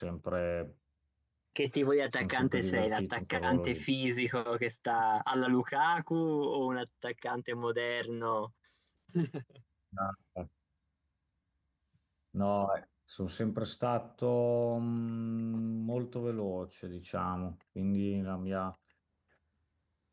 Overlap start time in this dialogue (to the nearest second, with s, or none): 2 s